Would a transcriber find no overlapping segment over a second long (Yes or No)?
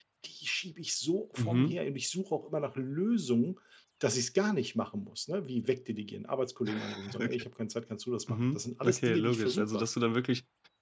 No